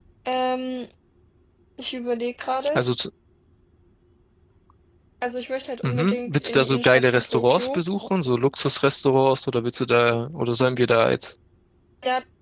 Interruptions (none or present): present